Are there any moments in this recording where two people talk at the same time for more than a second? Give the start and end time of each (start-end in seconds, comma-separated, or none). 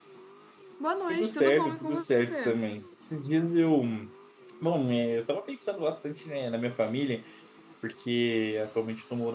1.1-2.6